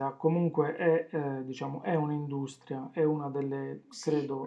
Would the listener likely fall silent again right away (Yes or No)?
Yes